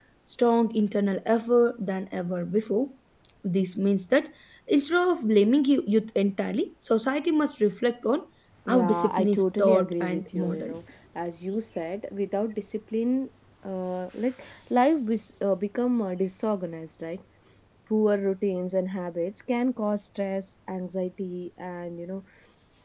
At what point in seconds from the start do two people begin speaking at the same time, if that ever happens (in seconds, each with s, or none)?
8.7 s